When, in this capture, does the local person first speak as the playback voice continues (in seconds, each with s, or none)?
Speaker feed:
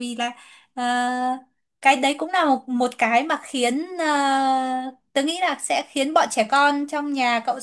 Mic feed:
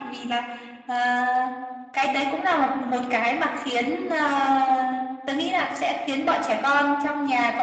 none